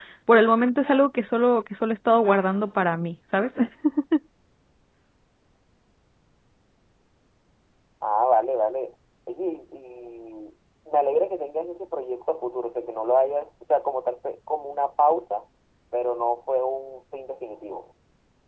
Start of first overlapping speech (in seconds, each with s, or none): none